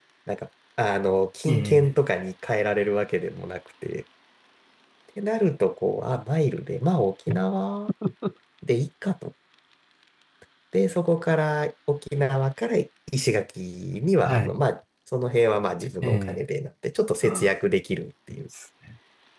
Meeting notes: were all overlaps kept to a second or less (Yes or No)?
Yes